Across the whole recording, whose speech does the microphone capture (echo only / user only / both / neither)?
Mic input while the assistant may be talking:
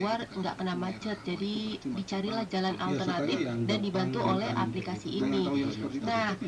both